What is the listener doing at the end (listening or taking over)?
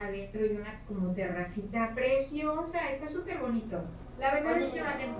listening